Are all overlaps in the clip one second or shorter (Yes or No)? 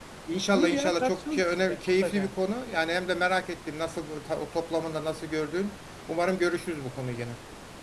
No